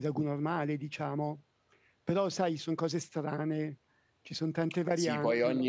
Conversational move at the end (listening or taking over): taking over